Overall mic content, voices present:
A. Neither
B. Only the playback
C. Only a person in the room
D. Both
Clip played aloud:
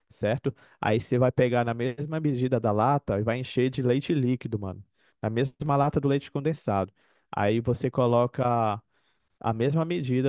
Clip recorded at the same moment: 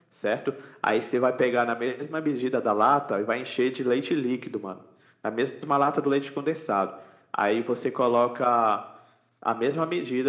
B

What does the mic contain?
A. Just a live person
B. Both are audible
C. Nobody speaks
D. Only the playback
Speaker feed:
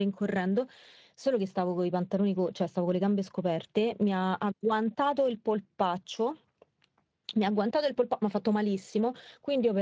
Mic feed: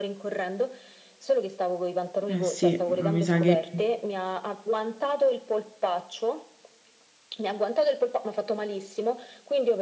B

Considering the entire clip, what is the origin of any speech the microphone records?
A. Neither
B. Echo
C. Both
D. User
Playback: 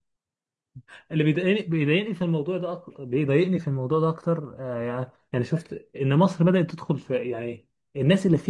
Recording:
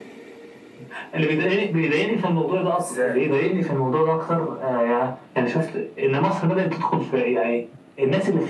C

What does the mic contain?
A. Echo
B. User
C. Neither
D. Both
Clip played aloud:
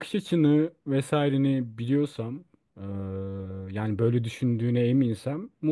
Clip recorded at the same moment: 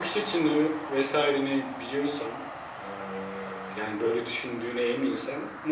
A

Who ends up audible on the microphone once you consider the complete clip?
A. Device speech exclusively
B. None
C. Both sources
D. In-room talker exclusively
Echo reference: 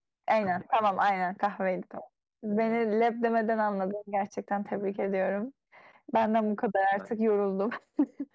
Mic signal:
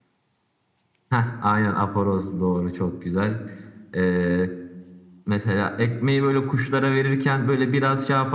D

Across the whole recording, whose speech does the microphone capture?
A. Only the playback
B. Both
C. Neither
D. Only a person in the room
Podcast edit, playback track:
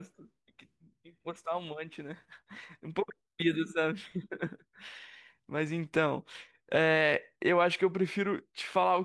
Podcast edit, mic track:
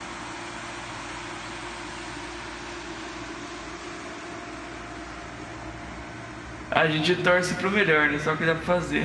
D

